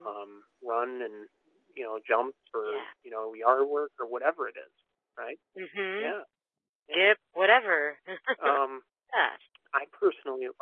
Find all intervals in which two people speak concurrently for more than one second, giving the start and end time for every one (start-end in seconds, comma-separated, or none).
none